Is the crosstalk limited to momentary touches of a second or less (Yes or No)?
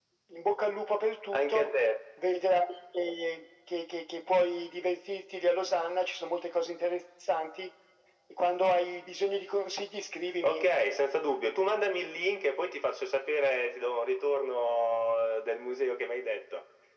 Yes